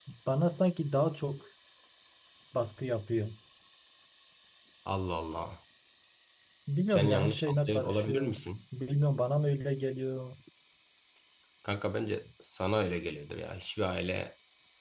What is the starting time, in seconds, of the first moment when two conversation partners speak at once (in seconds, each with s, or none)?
6.9 s